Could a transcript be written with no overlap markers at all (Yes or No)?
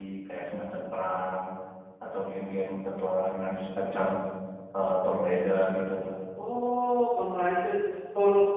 Yes